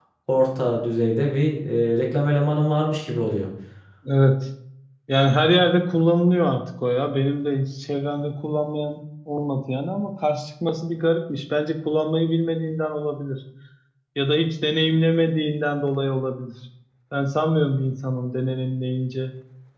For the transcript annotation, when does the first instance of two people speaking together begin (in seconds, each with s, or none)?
none